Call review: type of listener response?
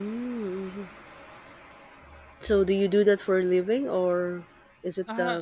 taking over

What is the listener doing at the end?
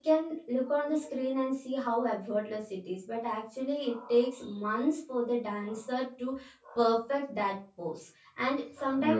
listening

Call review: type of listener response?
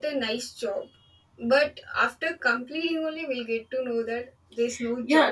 taking over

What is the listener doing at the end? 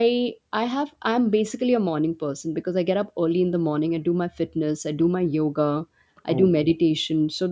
listening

